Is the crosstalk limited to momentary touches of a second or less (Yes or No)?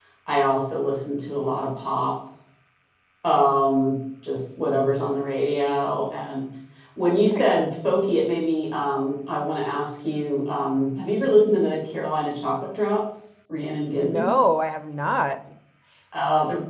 Yes